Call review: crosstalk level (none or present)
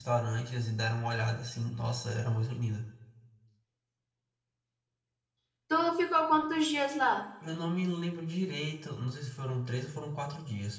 none